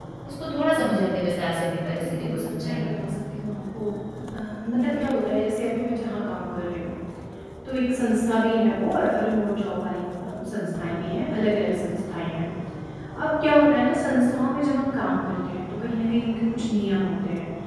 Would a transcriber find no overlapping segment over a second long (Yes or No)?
No